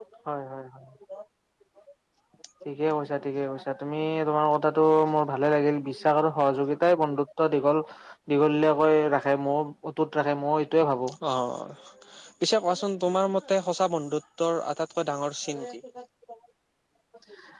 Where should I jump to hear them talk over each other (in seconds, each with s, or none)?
none